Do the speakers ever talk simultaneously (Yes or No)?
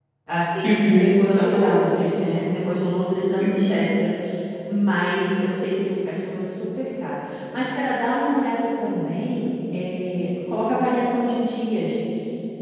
Yes